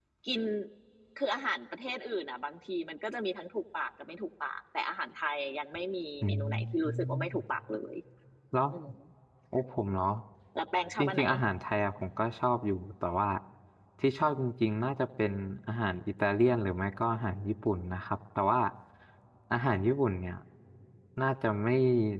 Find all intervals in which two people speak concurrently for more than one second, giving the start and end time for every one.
6.2-7.4

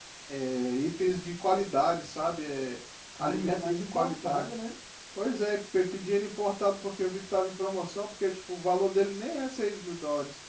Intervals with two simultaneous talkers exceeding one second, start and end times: 3.2-4.5

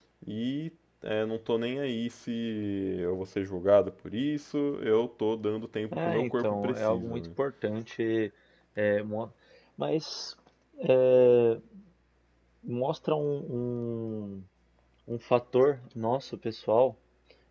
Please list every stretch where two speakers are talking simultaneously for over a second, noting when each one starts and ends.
5.9-7.2

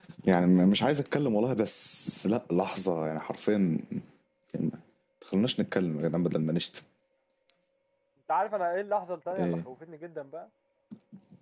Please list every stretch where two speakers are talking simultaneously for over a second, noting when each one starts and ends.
none

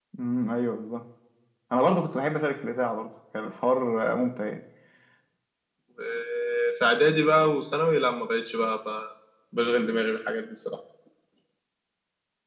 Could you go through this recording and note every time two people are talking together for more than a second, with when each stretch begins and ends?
none

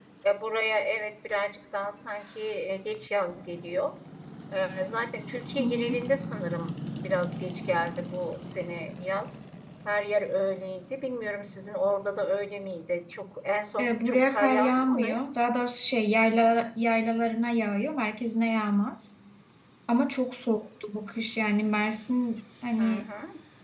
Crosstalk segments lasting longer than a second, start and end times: 13.8-15.2

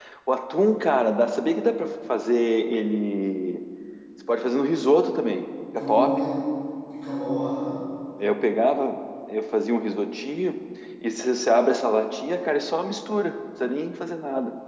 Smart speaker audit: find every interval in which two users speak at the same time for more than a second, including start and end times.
none

